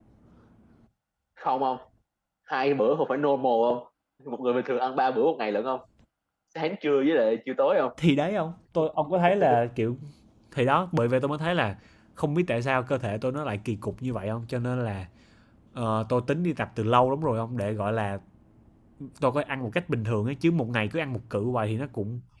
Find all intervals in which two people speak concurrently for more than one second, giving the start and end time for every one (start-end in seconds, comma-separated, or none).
none